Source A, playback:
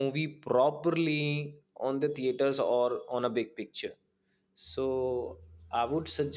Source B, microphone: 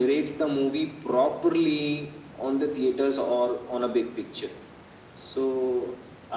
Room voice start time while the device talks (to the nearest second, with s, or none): none